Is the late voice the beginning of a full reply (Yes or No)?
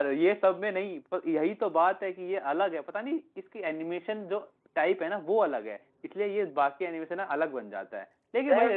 No